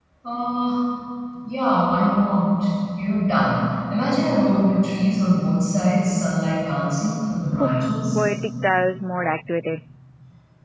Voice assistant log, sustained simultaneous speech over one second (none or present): none